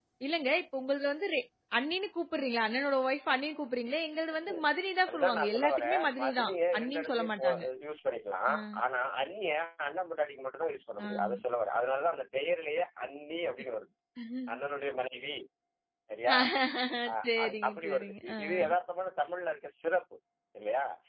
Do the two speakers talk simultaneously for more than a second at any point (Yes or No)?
Yes